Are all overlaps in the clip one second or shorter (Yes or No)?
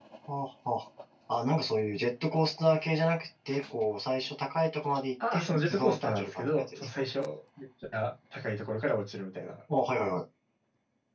No